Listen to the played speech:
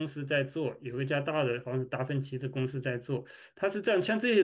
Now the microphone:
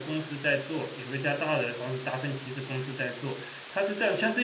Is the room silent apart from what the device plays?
Yes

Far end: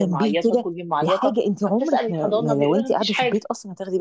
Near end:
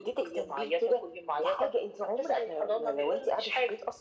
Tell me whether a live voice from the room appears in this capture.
No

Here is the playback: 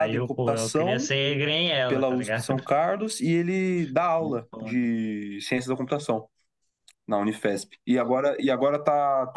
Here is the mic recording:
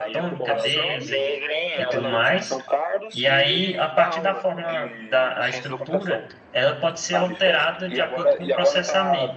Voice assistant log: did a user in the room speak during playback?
Yes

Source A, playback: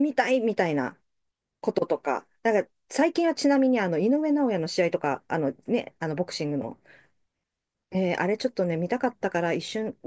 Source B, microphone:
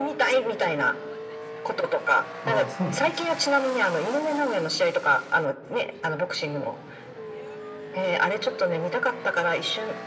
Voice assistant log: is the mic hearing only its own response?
No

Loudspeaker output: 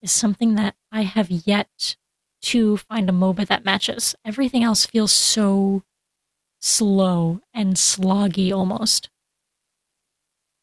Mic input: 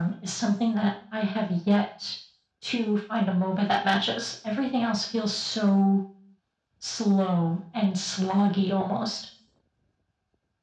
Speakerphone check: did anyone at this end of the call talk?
No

